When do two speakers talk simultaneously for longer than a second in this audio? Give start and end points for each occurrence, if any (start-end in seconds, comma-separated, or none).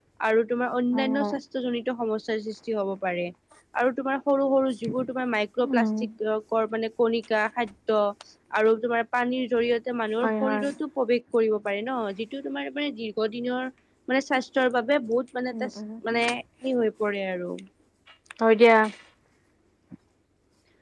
none